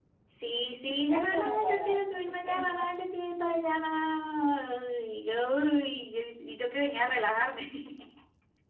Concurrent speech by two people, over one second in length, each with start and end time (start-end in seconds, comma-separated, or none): 1.1-2.9